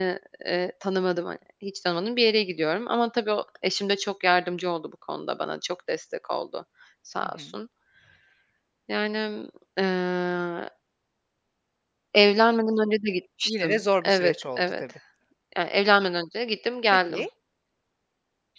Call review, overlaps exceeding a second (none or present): present